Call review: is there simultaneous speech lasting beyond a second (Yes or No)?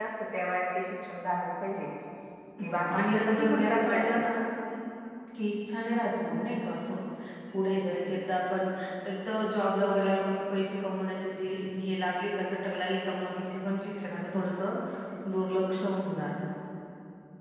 Yes